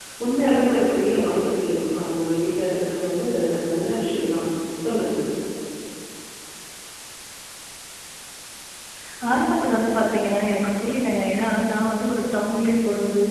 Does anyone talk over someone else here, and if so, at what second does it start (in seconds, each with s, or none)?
none